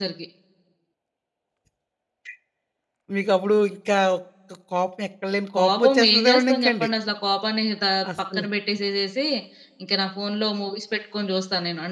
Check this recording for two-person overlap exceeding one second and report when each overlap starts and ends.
5.5-6.9

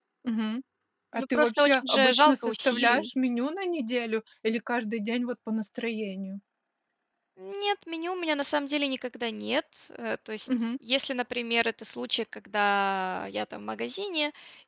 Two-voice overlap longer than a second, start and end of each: 1.1-3.1

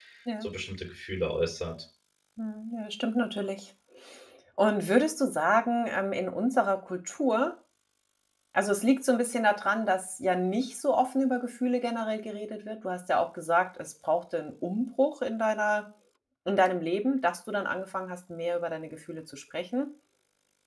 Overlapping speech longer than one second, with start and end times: none

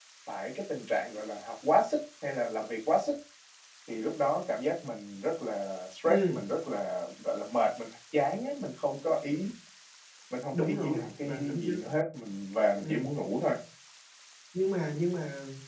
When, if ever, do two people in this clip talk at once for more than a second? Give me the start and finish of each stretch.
10.5-11.9

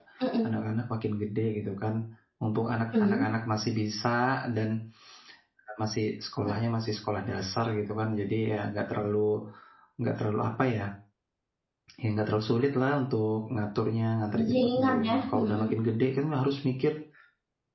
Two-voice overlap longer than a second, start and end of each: 14.3-15.7

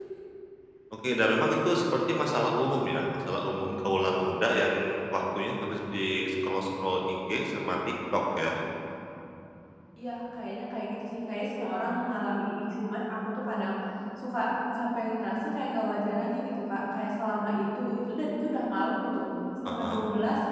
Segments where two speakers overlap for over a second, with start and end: none

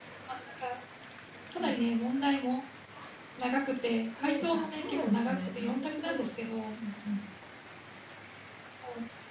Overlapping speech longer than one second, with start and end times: 4.2-6.4

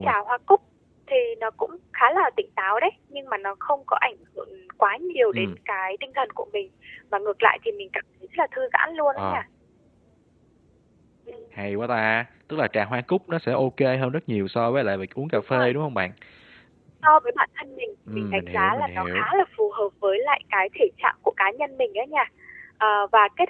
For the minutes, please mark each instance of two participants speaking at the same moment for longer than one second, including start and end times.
18.1-19.3

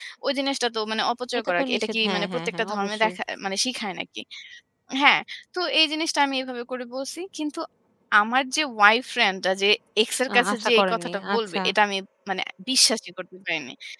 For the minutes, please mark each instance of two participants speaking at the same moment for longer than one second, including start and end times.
1.4-3.1, 10.3-11.6

